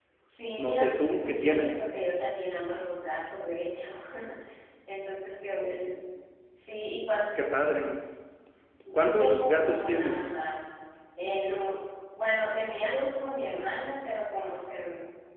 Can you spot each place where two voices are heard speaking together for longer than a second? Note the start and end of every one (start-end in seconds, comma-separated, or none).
0.6-1.8, 8.9-10.3